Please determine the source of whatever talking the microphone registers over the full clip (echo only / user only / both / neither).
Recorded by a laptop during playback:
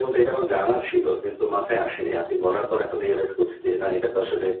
echo only